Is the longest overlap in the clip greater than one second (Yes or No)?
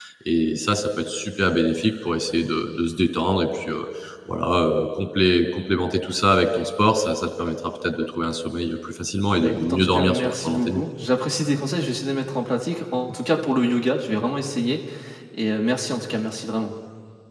Yes